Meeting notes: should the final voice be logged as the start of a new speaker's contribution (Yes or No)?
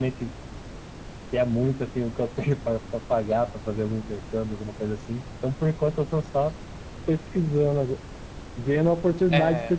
No